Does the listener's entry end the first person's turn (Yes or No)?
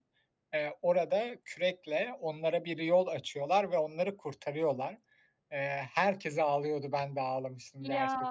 No